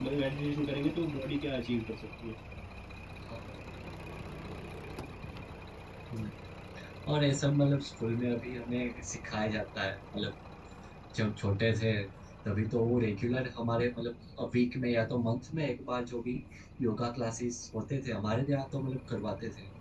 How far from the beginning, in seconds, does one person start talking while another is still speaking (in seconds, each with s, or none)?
none